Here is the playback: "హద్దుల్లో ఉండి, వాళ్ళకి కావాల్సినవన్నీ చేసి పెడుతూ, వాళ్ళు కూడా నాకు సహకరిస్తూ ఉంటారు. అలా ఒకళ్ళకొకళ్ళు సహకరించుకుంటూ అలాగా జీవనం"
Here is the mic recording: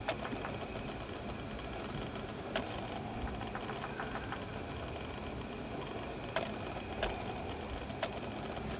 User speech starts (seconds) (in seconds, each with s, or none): none